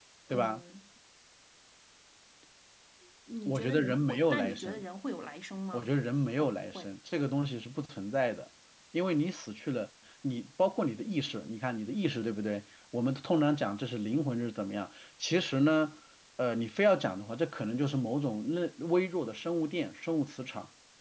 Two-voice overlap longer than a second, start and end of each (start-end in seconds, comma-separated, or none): 3.5-4.8